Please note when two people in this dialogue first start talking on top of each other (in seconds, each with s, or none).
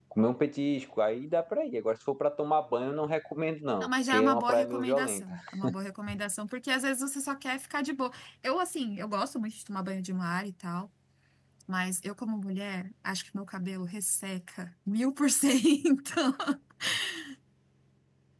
3.8 s